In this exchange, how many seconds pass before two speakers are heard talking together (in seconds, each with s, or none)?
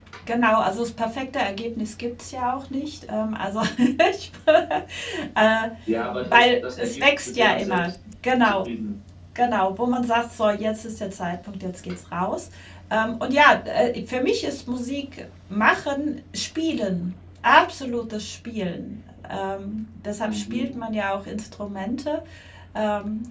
6.2 s